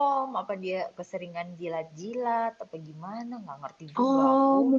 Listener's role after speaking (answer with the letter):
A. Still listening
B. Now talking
B